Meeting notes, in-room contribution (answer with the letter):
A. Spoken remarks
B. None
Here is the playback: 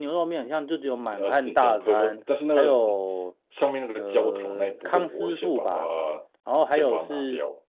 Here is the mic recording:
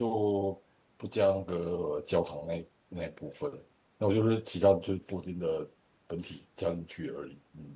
A